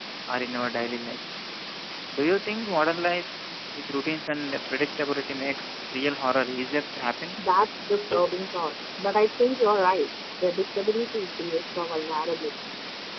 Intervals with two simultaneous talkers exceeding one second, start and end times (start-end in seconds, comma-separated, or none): none